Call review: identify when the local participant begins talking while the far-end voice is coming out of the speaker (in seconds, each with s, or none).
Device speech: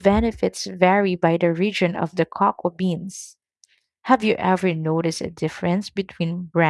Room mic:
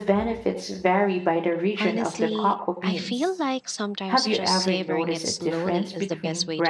1.8 s